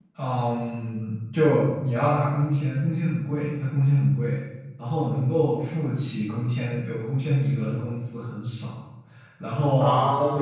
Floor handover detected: No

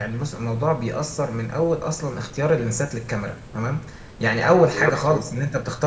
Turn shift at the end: No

